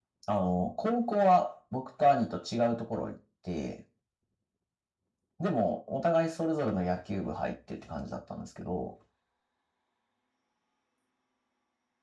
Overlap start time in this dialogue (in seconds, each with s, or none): none